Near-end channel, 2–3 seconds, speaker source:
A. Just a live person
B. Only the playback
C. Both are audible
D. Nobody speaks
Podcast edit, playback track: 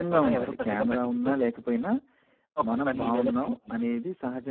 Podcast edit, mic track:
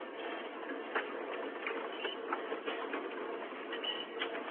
D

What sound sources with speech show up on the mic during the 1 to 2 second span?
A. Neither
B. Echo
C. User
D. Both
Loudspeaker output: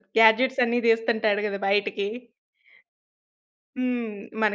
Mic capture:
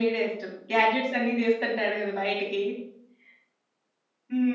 B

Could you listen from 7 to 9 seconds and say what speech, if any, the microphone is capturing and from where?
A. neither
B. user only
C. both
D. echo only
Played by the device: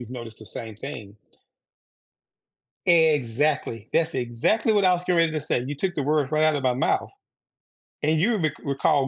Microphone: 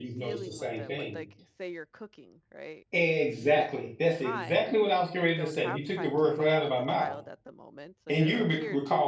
C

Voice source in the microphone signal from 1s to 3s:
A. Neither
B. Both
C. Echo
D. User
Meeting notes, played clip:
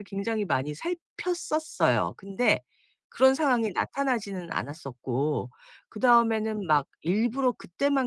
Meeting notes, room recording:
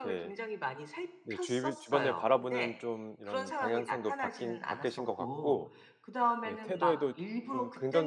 B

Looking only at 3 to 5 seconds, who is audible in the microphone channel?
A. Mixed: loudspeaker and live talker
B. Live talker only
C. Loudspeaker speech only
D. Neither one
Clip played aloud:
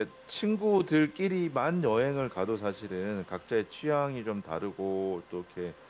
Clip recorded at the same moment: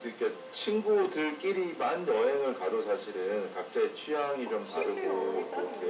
A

